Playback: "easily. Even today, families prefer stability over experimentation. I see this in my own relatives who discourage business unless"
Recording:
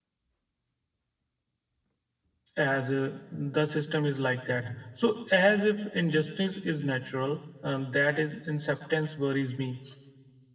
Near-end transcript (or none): as uh, the system is like that. So as if injustice is natural, um, that is acceptance worries me.